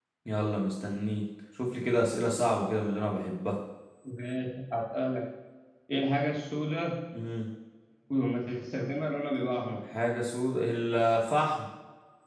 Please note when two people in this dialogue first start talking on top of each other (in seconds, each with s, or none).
none